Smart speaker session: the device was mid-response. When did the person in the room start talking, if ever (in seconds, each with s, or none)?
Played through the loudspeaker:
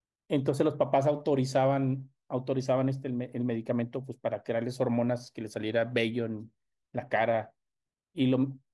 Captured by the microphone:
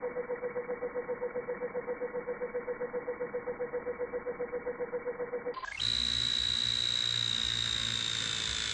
none